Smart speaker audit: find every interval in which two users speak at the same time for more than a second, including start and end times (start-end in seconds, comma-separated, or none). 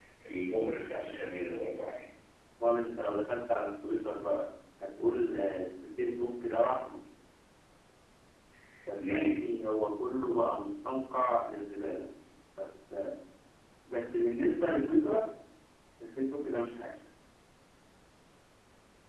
none